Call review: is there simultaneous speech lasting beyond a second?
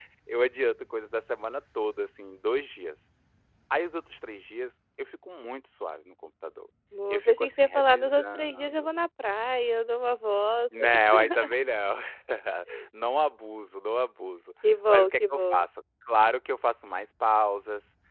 Yes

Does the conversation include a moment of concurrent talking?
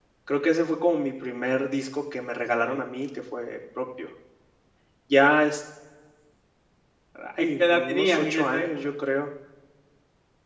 Yes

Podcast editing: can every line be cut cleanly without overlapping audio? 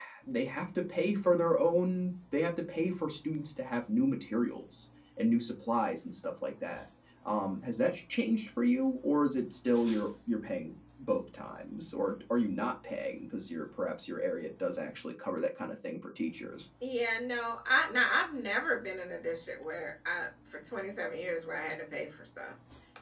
Yes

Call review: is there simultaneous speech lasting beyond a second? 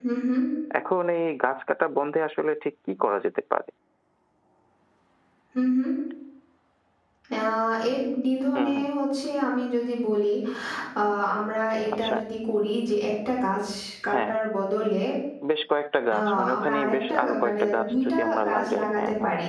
Yes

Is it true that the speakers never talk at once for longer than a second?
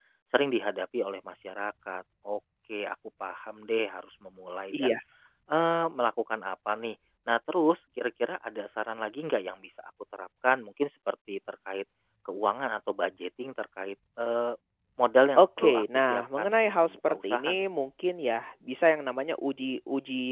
No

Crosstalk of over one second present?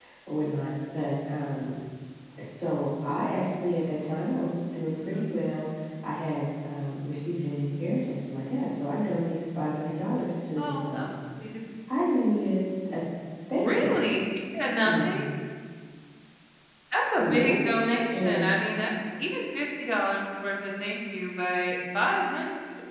No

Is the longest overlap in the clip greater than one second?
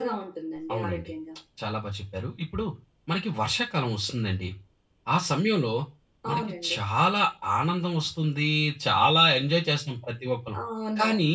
No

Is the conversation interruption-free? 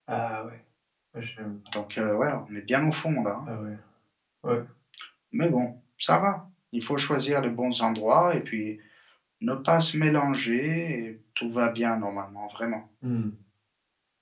Yes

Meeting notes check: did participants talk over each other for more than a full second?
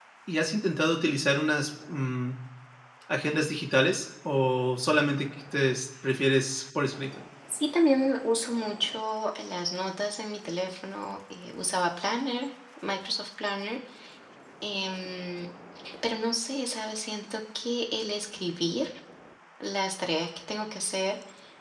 No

